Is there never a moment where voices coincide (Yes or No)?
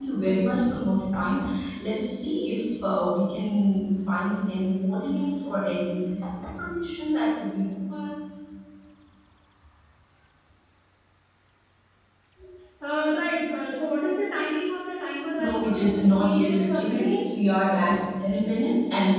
No